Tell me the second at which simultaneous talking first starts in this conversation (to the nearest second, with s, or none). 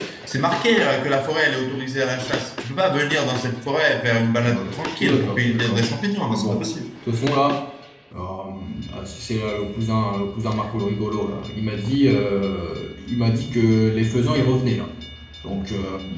4 s